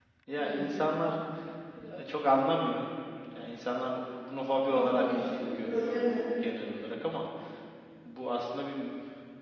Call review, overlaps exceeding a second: present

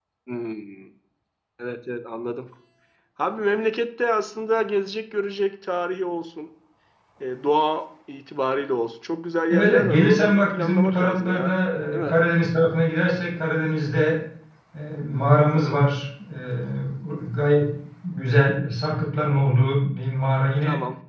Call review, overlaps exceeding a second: present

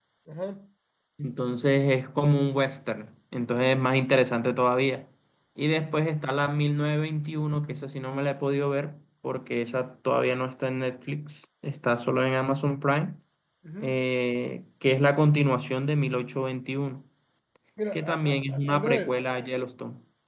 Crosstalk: present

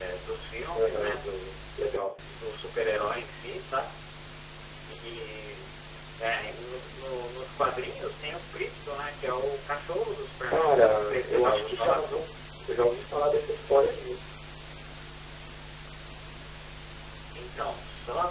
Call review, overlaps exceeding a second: present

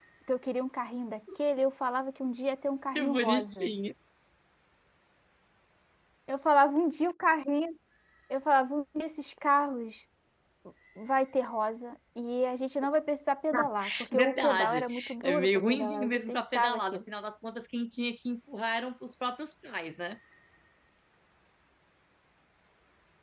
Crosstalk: present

